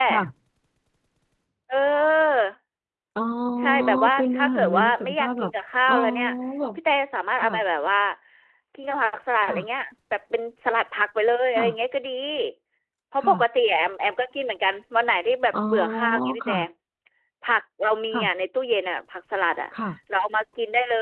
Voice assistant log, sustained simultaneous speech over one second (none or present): present